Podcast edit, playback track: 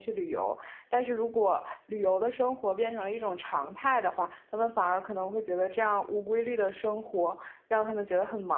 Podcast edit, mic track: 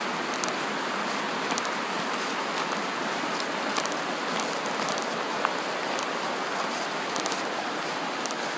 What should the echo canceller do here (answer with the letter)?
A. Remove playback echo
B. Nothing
B